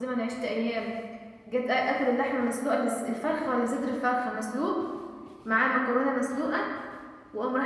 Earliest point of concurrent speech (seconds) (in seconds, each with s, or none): none